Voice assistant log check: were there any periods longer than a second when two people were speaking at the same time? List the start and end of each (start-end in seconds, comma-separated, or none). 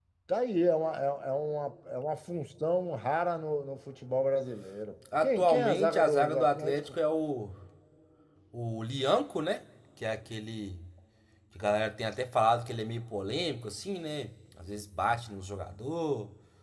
5.2-6.8